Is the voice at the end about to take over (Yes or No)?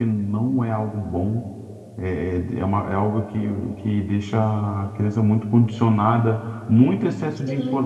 No